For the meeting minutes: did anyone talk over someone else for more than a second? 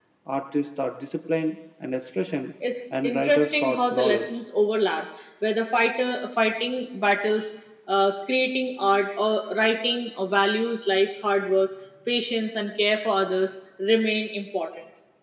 Yes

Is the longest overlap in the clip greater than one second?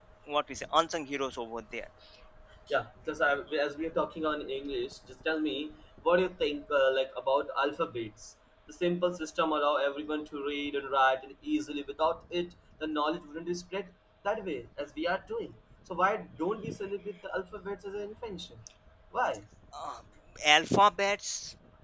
No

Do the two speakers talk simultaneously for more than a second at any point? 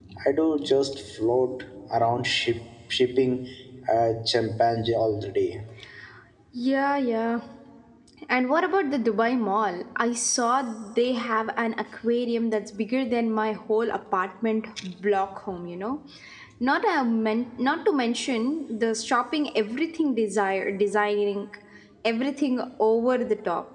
No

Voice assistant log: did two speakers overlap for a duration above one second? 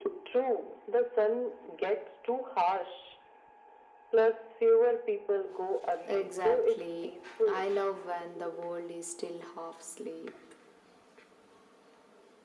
Yes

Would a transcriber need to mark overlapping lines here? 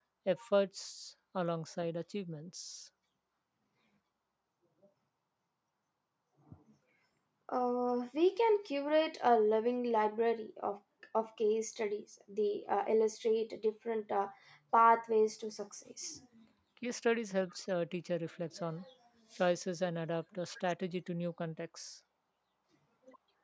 No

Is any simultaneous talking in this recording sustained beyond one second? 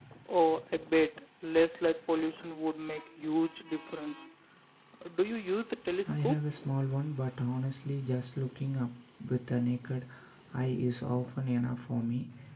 No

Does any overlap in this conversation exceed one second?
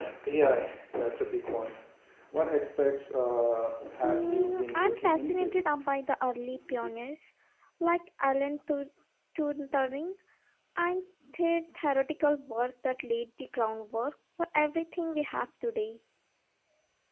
Yes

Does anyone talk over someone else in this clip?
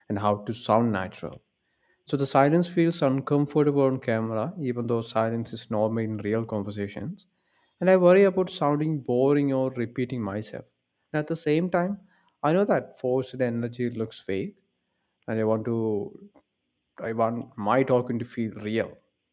No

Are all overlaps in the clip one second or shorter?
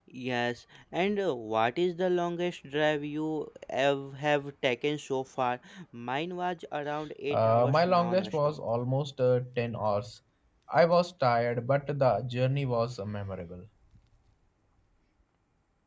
No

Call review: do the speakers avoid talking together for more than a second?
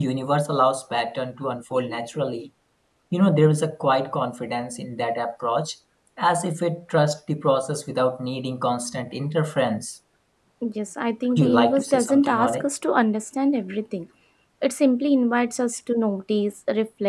No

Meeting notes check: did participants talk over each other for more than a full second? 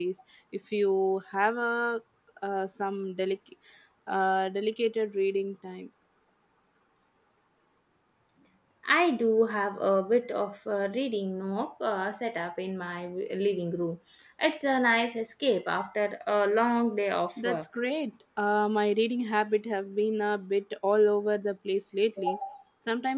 No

